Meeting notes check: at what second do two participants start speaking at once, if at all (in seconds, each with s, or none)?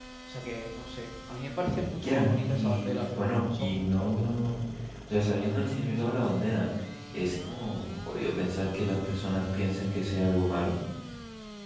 2.0 s